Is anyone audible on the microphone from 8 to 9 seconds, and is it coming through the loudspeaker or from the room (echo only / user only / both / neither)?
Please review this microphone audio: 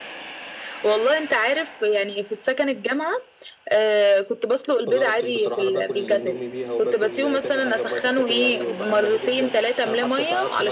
both